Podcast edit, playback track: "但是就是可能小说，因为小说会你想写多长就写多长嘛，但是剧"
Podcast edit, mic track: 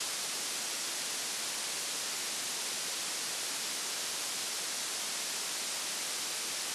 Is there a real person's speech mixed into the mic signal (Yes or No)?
No